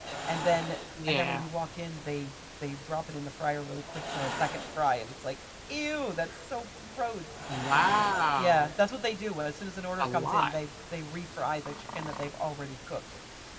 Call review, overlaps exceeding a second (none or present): none